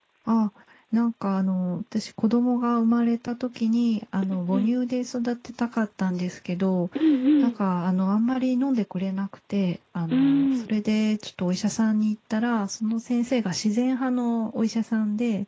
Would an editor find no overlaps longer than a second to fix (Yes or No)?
Yes